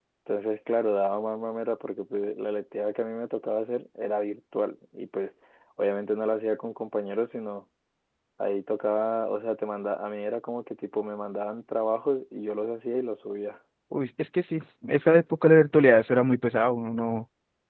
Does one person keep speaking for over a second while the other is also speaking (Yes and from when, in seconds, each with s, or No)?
No